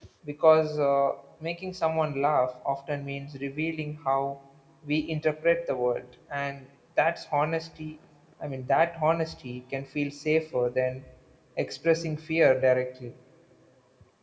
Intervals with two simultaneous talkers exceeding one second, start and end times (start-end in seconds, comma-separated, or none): none